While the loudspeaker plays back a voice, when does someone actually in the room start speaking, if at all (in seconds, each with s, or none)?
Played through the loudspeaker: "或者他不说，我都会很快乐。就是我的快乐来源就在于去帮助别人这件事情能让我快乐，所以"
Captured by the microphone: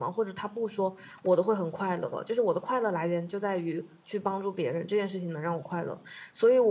none